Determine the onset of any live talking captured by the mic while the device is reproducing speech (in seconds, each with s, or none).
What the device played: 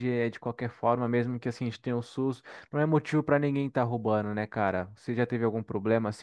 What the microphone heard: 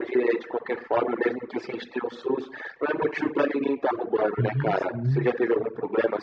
4.4 s